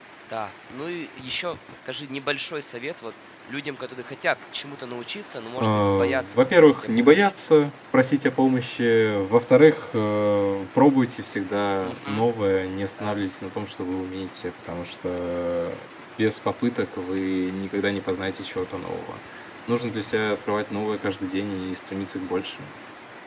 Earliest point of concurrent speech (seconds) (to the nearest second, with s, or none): 6 s